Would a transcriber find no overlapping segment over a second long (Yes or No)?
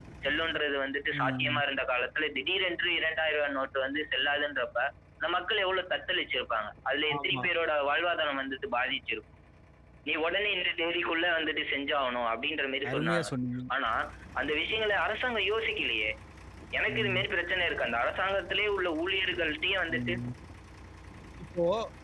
Yes